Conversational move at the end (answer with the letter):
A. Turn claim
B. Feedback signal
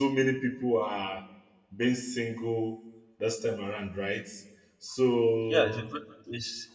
A